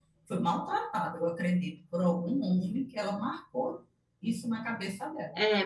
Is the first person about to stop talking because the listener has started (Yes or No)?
Yes